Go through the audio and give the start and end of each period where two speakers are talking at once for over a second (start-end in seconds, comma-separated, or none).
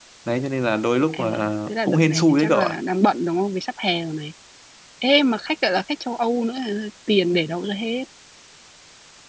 1.1-2.8